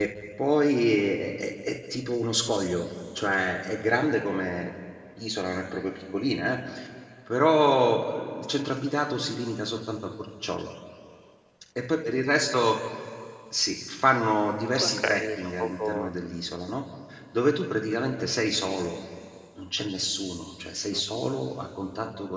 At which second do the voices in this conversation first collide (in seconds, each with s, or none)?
14.8 s